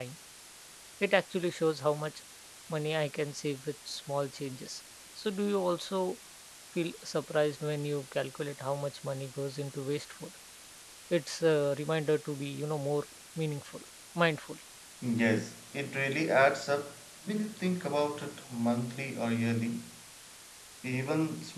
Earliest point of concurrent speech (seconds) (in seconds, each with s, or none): none